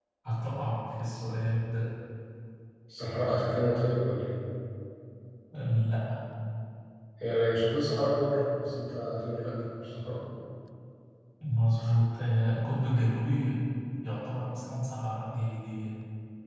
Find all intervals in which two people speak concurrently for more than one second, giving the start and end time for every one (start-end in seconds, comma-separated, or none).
none